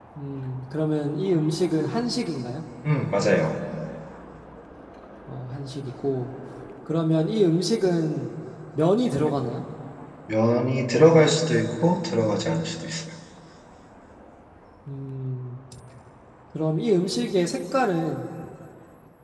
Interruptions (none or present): none